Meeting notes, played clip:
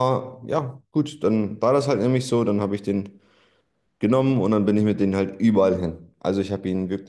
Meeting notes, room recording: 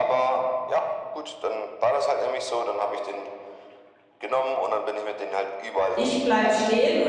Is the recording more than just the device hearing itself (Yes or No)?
Yes